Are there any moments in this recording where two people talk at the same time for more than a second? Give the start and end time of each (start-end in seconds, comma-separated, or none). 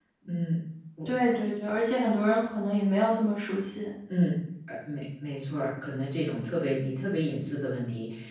none